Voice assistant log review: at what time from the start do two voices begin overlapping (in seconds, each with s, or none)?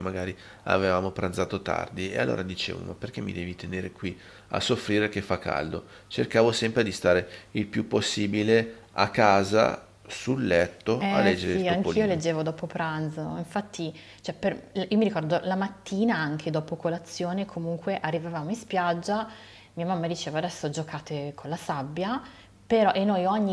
11.0 s